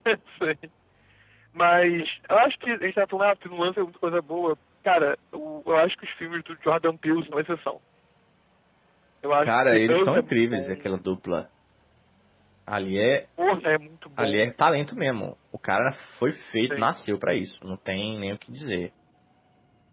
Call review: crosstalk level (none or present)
present